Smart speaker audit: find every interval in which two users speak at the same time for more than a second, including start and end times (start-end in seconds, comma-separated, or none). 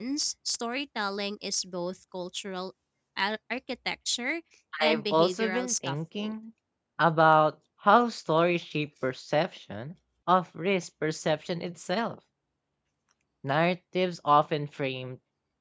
4.8-6.3